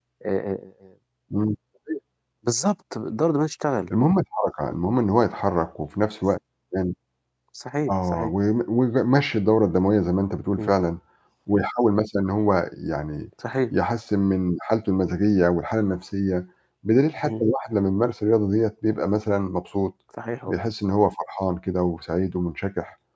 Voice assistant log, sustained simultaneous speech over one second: none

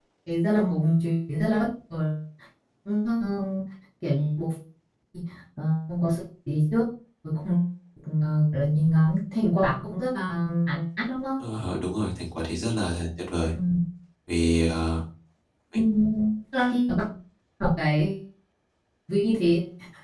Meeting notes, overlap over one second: none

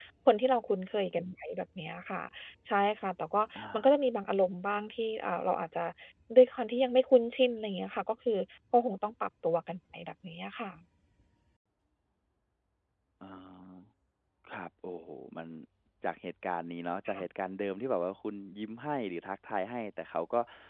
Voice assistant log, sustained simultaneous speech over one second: none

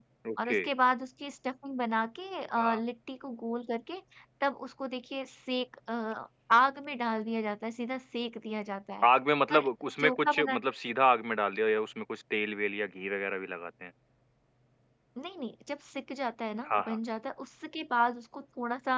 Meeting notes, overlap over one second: none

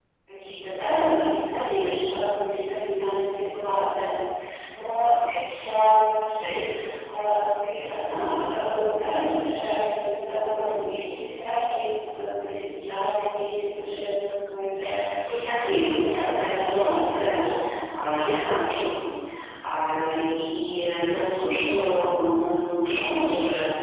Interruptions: present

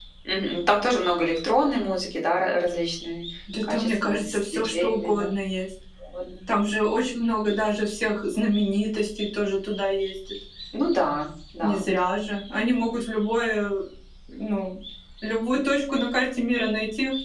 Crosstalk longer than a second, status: present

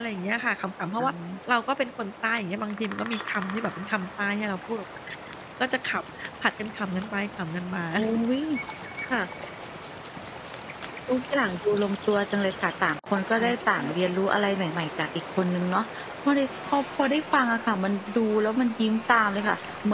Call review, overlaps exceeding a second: none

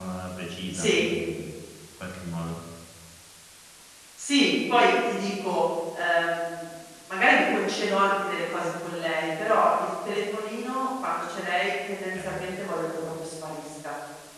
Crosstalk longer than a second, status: none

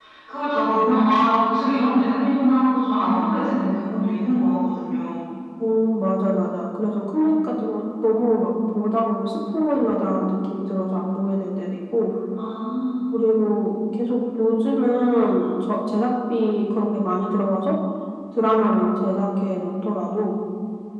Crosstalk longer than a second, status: none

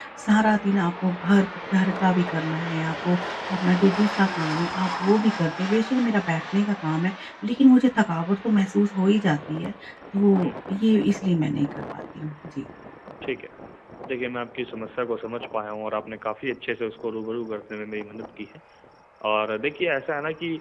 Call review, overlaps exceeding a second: none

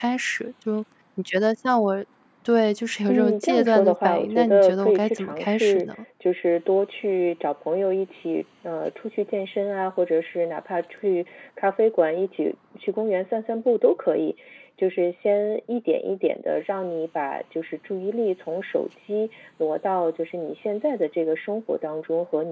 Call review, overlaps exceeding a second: present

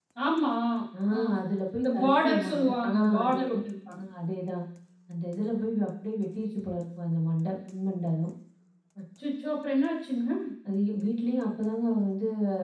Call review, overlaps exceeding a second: present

